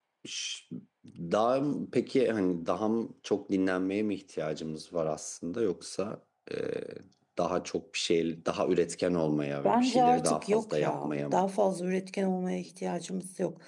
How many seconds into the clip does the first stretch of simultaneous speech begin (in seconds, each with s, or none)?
9.6 s